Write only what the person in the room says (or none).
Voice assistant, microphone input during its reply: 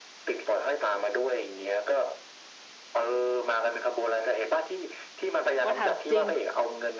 ว่าถามจริง